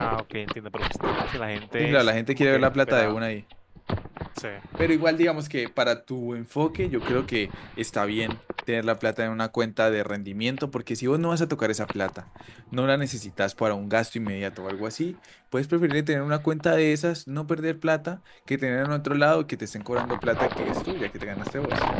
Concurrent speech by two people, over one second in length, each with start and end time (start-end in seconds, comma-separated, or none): 1.8-3.2